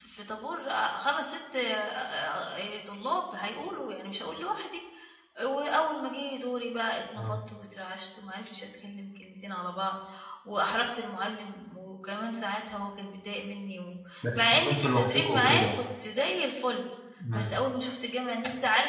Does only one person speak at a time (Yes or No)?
No